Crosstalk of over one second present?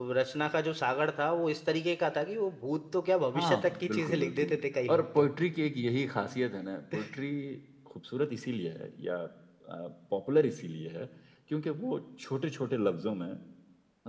Yes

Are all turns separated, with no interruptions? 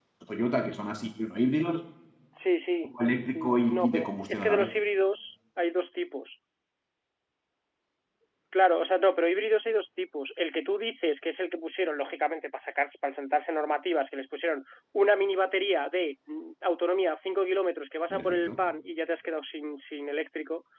No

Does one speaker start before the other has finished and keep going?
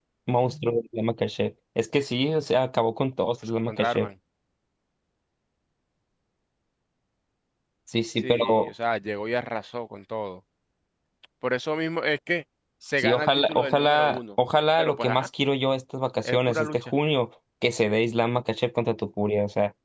Yes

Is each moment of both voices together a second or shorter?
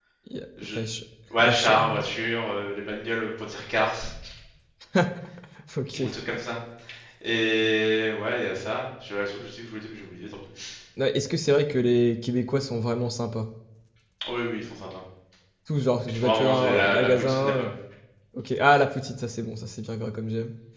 No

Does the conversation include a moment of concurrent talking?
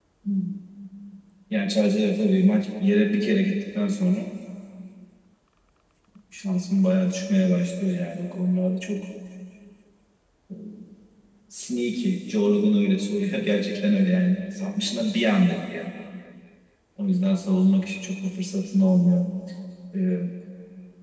No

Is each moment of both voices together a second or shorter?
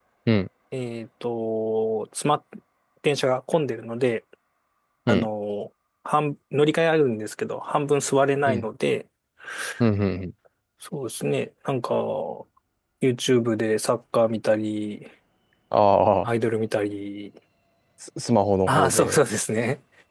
Yes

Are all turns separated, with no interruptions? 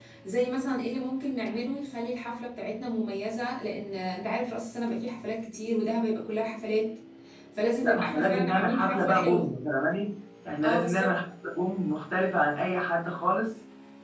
No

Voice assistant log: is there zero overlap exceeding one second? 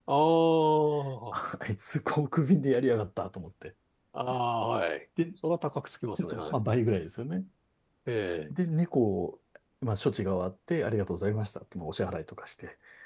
Yes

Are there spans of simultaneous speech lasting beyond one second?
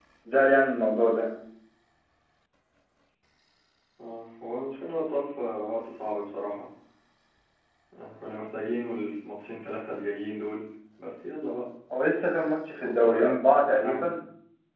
Yes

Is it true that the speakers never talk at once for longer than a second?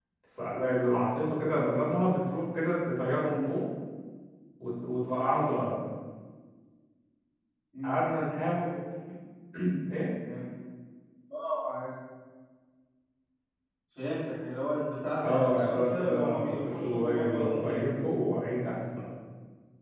No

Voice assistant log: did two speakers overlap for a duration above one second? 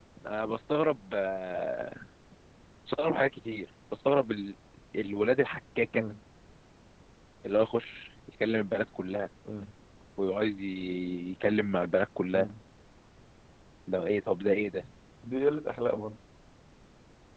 No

